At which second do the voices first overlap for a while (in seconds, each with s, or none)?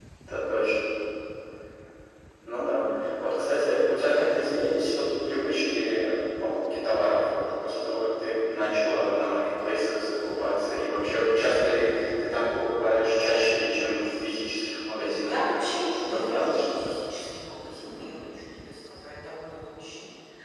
15.0 s